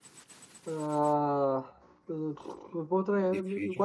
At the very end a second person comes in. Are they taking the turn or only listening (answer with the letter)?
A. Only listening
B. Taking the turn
A